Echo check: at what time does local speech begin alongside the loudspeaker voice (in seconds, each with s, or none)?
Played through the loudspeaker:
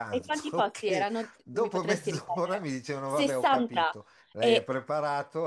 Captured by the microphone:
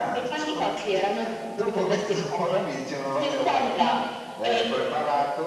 none